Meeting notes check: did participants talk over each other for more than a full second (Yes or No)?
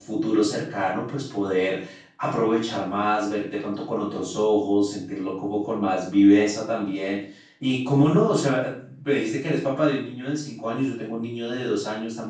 No